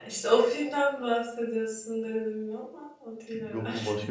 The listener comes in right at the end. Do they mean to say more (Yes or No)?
Yes